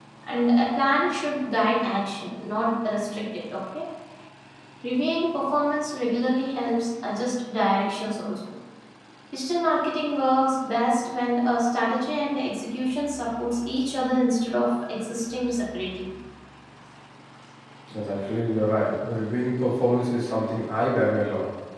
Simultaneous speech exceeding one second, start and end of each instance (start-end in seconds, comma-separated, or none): none